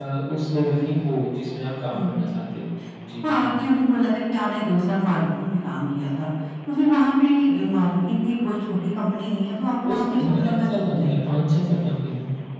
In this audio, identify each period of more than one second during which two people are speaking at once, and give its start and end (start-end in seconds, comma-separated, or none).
9.8-11.1